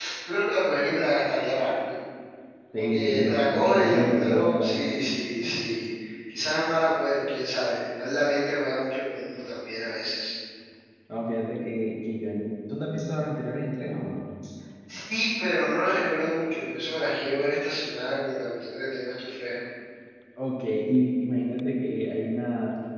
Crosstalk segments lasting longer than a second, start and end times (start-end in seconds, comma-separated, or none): 2.7-4.9